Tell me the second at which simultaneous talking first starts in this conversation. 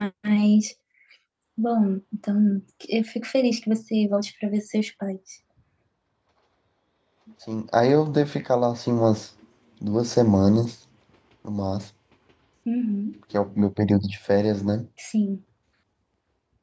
none

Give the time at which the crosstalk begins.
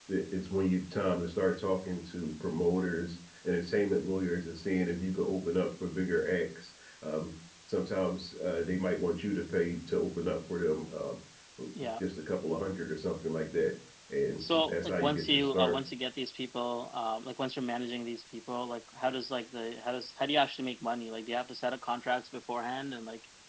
14.4 s

